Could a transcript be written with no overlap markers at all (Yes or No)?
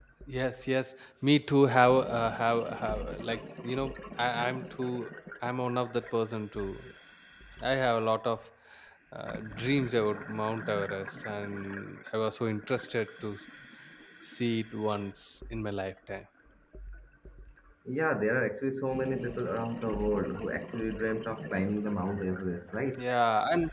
Yes